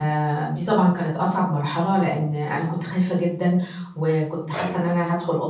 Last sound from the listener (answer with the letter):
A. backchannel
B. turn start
A